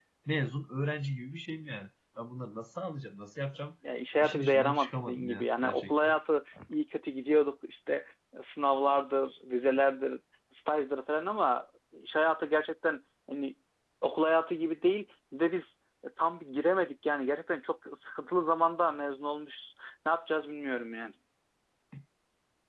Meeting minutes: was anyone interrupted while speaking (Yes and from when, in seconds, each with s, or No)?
Yes, from 4.2 s